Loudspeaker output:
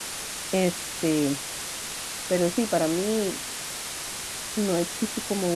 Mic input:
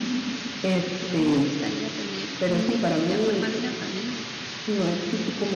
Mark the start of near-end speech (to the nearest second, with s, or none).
1 s